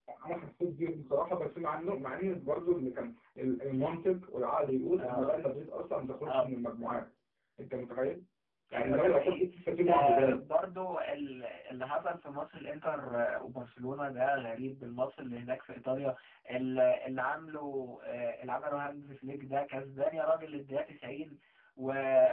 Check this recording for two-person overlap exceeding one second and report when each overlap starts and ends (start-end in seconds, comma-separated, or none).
8.7-10.4